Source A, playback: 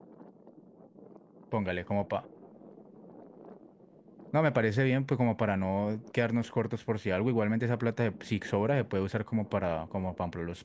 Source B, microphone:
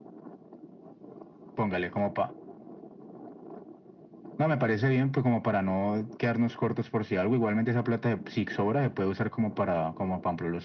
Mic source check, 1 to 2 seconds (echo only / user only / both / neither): echo only